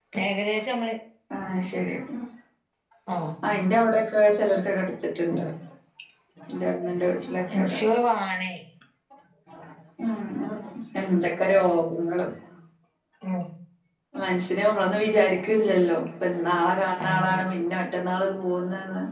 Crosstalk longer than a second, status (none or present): none